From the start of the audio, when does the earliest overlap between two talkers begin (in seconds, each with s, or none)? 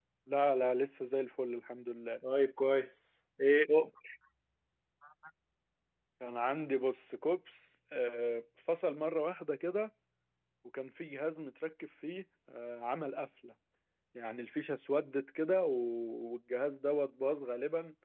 none